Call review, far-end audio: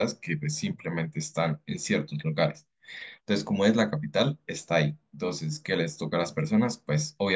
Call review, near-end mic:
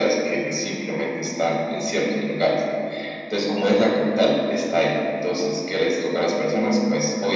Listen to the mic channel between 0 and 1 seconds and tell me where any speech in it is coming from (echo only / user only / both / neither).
echo only